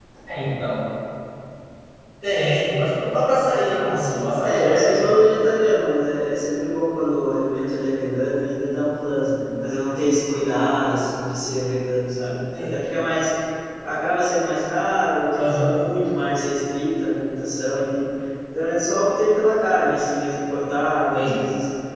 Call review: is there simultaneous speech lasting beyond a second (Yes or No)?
Yes